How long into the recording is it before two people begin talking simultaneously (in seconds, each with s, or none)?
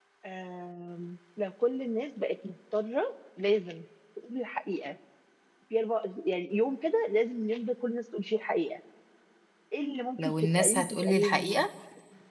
10.2 s